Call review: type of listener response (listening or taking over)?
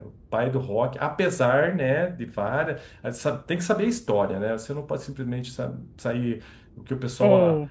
listening